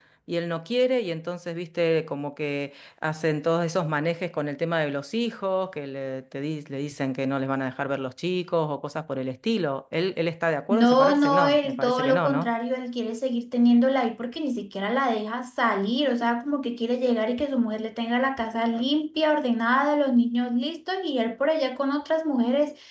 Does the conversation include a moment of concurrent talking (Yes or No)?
Yes